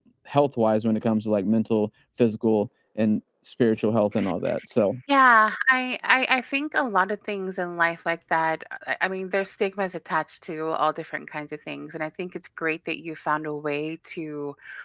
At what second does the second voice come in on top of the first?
none

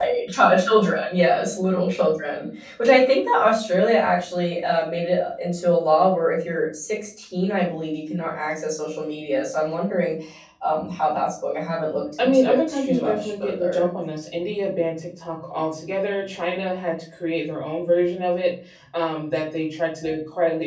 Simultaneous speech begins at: 12.2 s

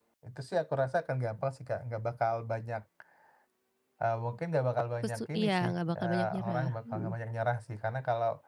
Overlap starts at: 5.0 s

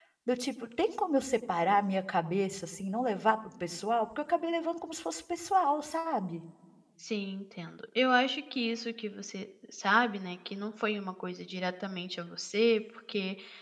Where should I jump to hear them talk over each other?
none

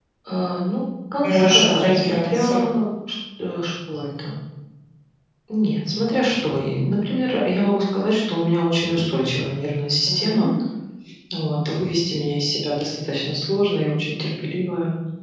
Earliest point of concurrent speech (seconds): 1.2 s

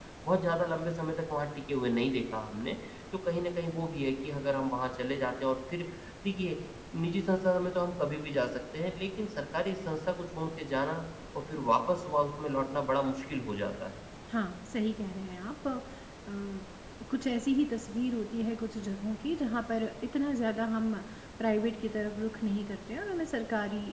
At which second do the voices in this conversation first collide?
none

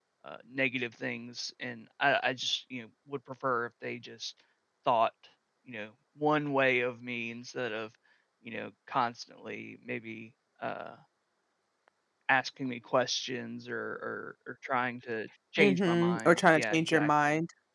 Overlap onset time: 15.6 s

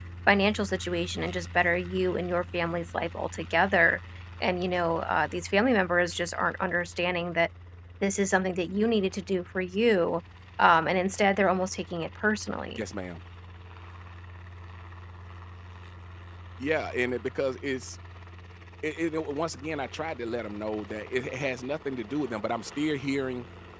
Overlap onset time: none

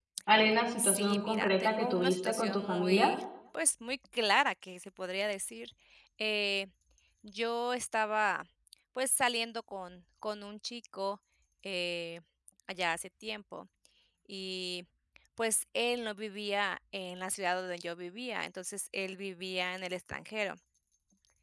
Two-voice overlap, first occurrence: 0.8 s

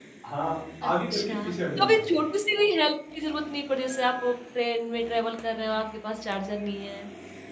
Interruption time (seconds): 0.8 s

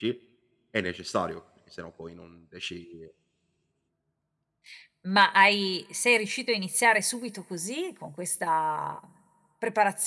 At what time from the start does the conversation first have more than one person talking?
none

